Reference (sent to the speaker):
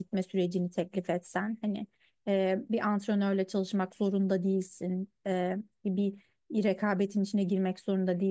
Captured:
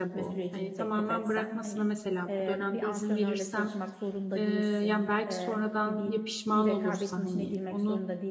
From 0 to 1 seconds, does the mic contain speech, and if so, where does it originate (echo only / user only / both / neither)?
both